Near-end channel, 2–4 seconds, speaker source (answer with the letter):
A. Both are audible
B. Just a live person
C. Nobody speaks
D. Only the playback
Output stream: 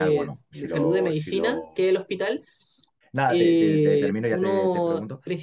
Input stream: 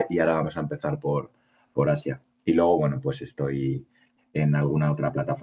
B